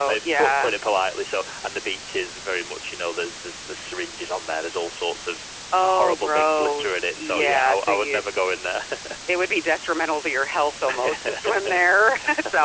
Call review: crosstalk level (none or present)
present